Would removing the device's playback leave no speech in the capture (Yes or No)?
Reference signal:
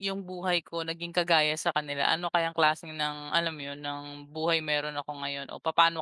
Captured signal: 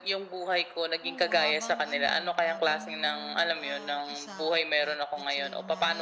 No